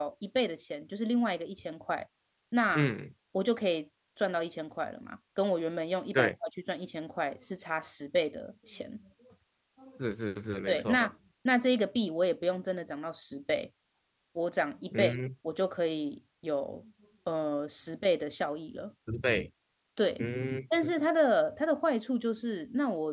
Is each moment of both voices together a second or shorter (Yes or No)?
Yes